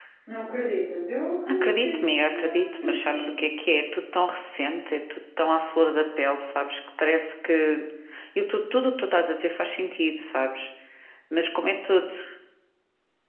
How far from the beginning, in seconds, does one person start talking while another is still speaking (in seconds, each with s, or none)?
1.5 s